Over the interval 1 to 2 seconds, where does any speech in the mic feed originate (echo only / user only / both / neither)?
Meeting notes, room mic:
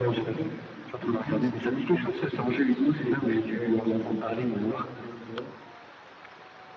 echo only